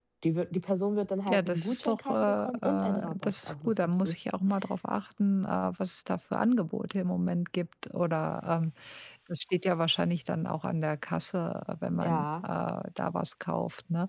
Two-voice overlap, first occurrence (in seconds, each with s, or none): 1.3 s